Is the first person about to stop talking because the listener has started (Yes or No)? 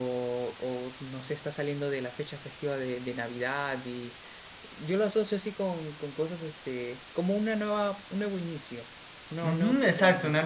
Yes